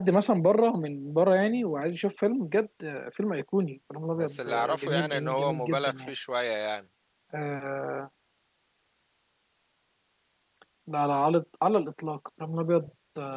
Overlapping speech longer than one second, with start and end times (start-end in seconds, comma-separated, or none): 4.2-6.1